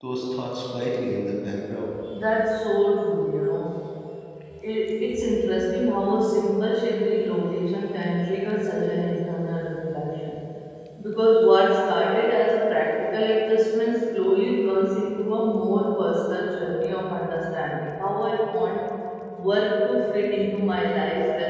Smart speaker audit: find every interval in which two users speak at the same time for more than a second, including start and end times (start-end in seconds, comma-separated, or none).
none